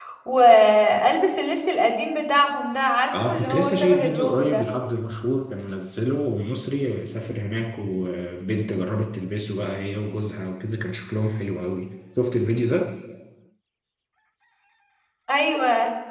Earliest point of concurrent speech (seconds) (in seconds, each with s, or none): 3.1 s